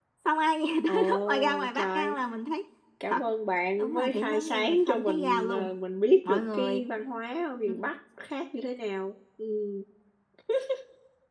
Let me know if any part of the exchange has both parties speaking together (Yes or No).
Yes